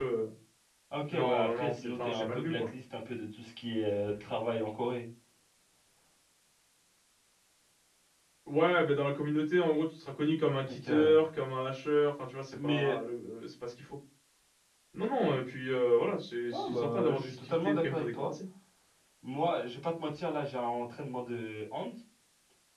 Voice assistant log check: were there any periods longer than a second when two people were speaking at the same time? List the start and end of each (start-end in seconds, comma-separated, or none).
1.1-2.7, 16.5-18.3